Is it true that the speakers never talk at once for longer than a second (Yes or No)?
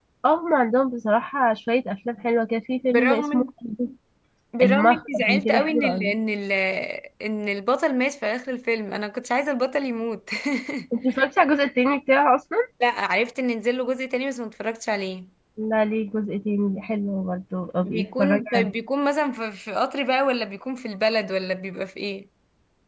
No